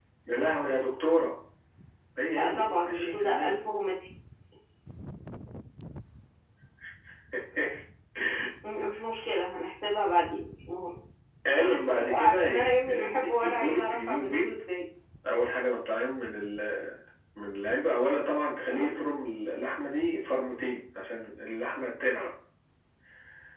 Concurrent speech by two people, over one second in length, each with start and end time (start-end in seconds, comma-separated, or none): 2.3-3.6, 11.6-14.5